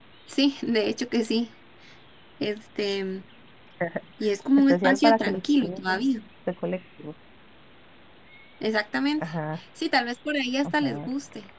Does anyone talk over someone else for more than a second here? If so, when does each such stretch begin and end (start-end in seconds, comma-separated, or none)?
4.6-5.8